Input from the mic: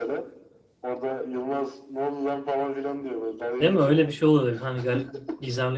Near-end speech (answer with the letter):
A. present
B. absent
A